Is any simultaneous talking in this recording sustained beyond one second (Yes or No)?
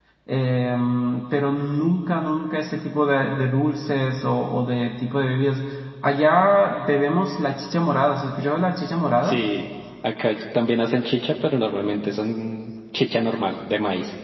No